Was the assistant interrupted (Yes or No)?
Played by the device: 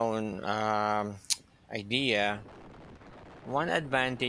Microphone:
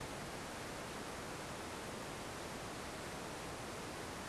No